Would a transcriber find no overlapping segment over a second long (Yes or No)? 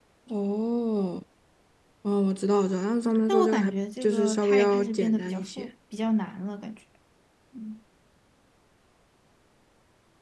No